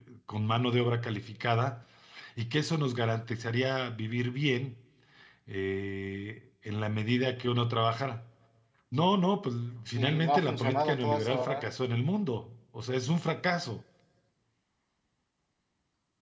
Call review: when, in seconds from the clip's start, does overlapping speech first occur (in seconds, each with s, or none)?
9.9 s